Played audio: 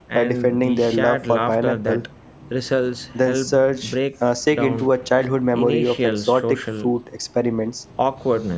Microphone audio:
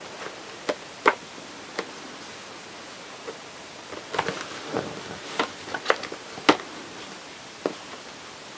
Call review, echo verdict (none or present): none